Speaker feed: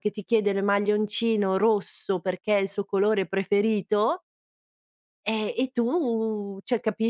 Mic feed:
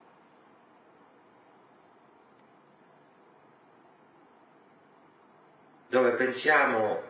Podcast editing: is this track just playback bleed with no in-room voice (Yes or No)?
No